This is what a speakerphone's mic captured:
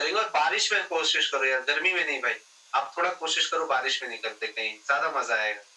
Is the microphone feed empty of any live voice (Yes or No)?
Yes